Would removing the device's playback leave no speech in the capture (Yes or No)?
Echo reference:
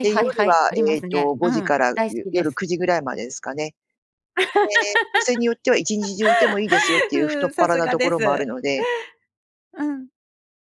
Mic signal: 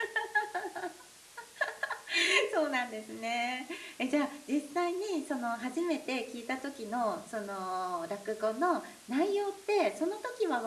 No